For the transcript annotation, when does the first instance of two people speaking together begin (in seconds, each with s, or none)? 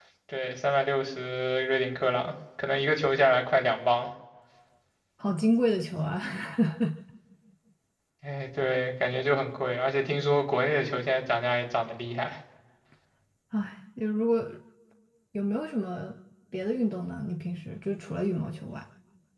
none